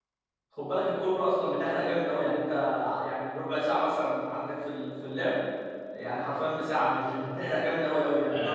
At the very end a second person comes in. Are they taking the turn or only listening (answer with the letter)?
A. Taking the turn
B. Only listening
A